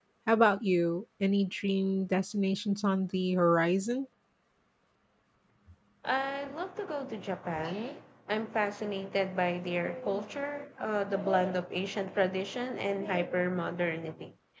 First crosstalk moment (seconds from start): none

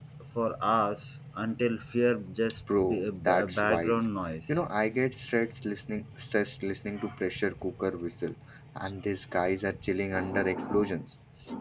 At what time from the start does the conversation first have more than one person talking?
2.7 s

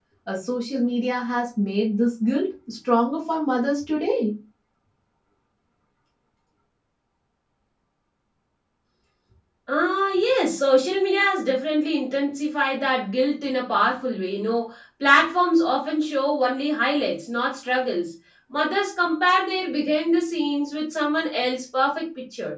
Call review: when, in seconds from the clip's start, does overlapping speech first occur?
none

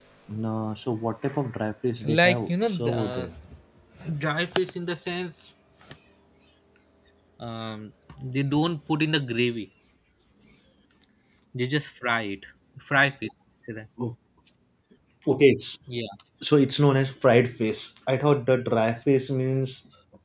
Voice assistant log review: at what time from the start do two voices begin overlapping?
2.0 s

